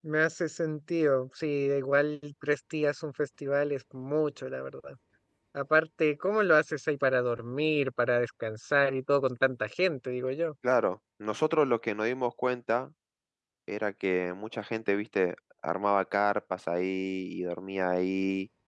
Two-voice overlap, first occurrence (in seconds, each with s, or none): none